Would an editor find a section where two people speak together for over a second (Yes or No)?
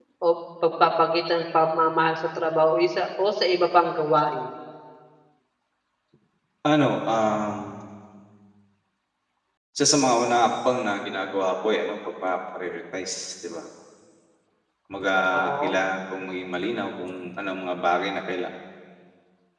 No